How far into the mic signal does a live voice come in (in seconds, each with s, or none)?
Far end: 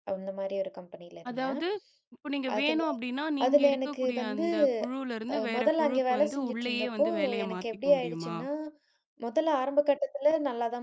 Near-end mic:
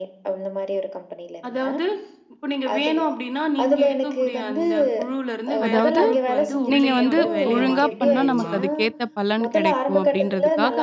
5.7 s